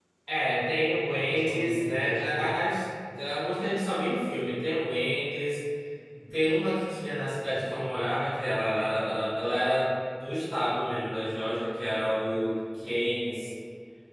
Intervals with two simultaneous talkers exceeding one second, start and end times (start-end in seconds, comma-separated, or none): 1.1-2.6